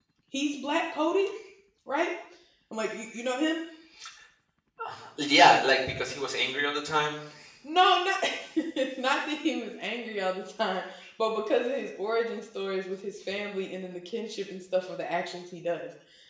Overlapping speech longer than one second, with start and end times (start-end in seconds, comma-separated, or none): none